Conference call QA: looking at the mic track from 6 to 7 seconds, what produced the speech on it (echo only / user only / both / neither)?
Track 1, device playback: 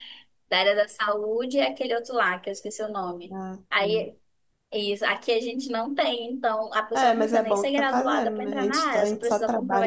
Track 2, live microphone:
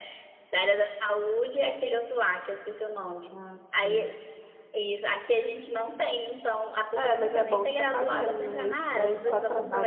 echo only